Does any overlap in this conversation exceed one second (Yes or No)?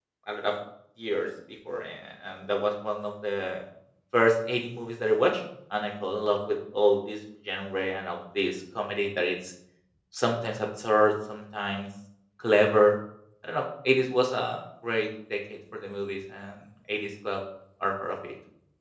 No